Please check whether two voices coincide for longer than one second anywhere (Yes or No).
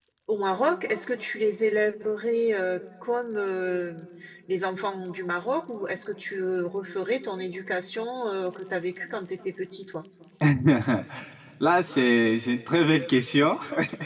No